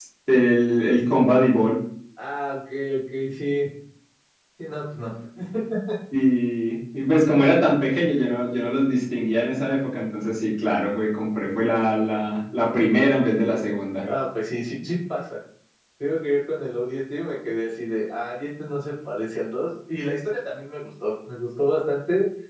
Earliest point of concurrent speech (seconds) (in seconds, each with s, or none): none